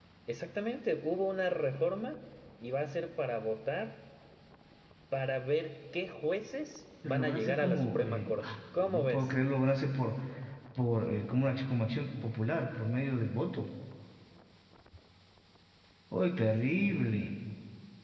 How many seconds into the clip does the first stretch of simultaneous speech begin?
7 s

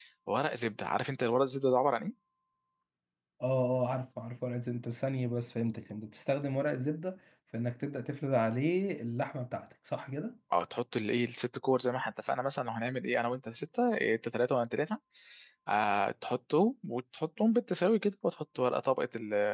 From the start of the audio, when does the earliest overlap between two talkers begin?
none

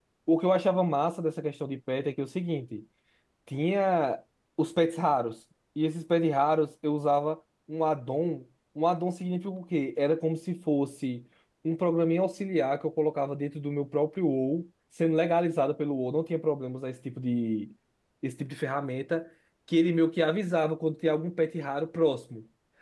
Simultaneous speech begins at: none

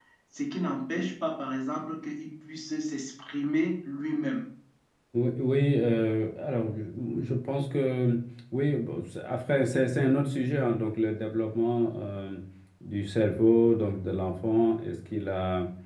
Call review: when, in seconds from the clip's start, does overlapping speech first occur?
none

